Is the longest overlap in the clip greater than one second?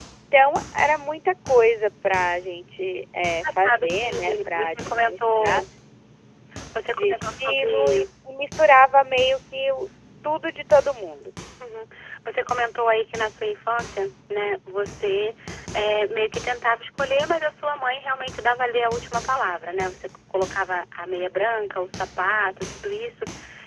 Yes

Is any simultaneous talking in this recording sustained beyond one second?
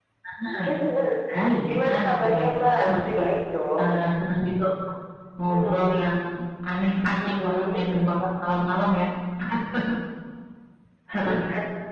Yes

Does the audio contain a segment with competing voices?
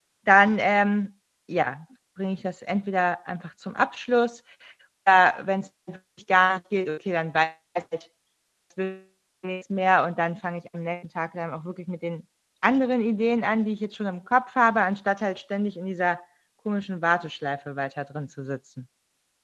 No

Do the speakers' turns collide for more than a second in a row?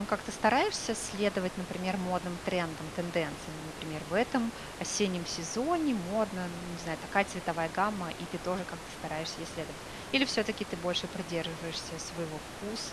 No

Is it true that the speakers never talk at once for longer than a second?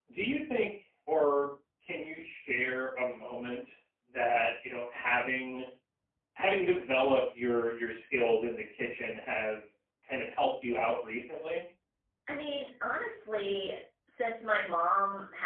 Yes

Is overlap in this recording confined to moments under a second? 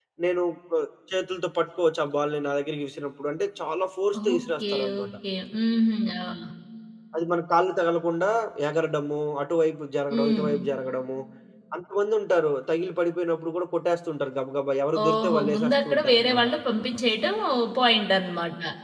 No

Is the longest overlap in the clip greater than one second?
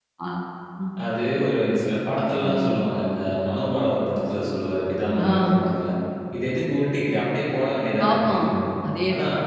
No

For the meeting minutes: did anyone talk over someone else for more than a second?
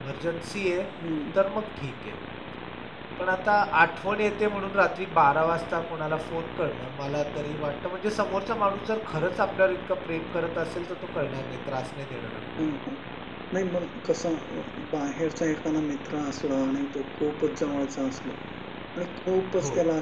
No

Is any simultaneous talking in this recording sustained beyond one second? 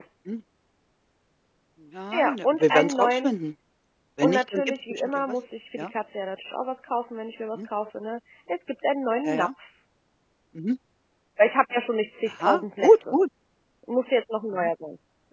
Yes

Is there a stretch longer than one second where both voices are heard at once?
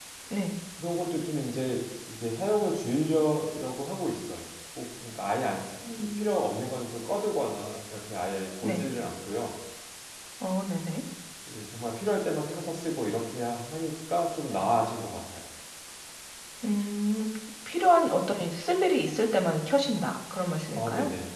No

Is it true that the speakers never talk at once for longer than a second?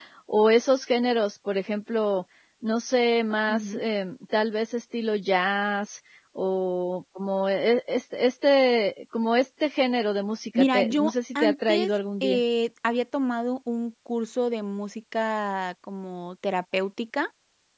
No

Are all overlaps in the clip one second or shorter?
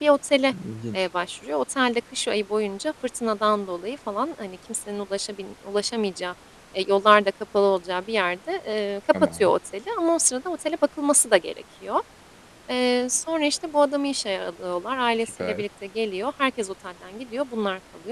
Yes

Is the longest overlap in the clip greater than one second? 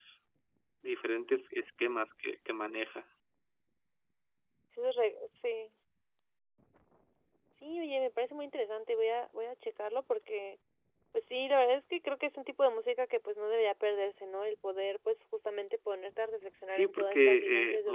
Yes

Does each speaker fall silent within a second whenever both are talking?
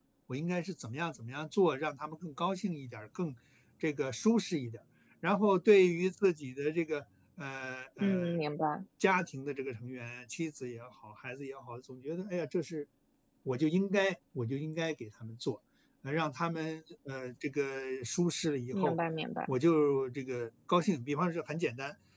Yes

